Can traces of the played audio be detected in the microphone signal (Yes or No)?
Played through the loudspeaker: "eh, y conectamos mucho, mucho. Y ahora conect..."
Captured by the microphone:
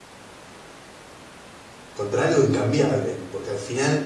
No